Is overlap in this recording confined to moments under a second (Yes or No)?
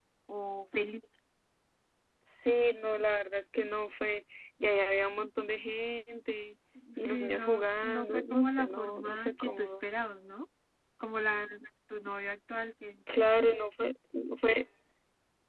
No